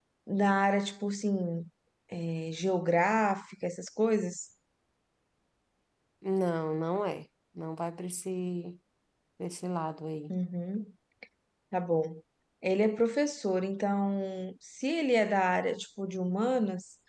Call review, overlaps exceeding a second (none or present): none